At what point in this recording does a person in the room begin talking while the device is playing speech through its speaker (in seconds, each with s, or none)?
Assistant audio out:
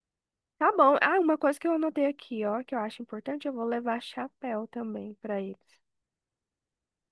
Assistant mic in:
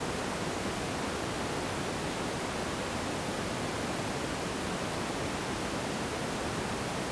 none